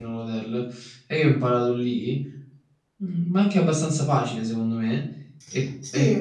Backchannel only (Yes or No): Yes